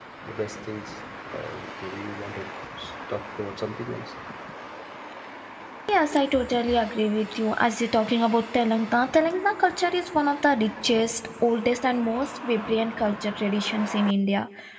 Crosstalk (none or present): none